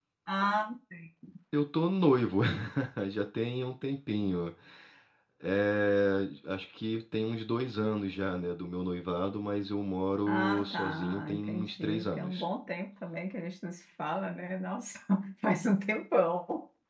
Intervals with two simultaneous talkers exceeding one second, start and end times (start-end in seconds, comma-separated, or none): 10.3-12.4